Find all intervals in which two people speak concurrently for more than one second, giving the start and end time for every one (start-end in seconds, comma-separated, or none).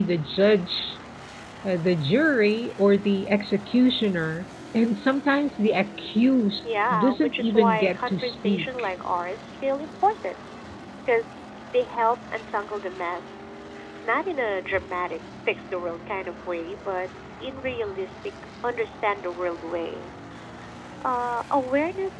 6.9-8.9